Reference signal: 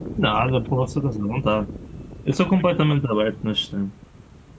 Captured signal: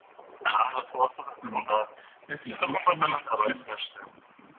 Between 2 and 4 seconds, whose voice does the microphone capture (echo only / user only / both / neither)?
both